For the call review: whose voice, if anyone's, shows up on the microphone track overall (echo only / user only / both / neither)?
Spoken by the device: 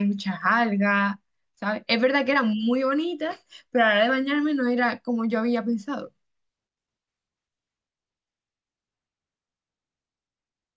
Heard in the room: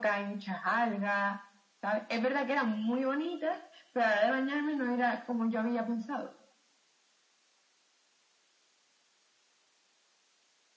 echo only